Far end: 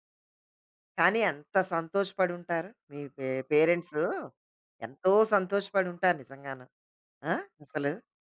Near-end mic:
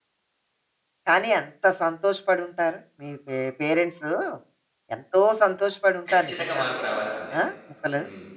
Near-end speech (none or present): present